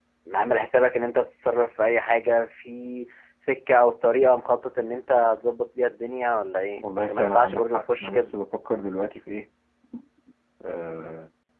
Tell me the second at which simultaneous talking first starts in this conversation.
7 s

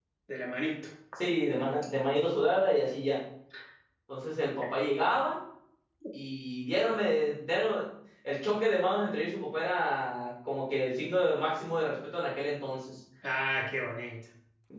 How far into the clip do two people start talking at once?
none

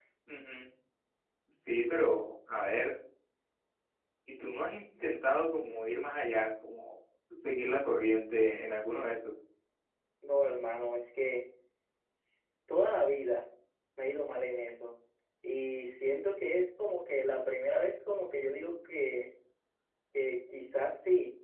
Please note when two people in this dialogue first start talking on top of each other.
none

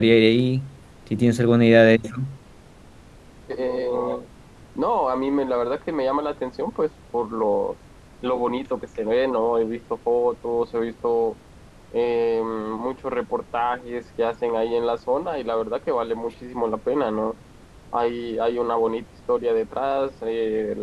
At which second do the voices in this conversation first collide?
none

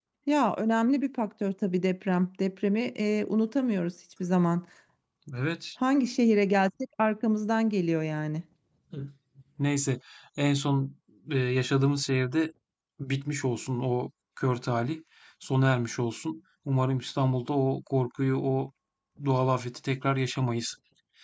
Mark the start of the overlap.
none

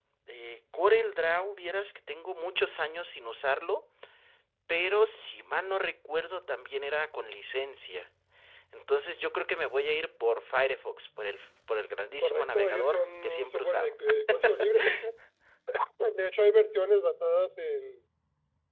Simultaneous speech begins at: 12 s

